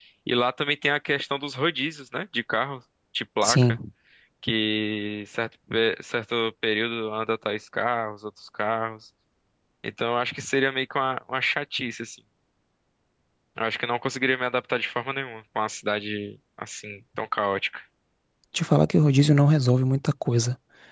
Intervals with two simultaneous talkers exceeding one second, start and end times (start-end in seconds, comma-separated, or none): none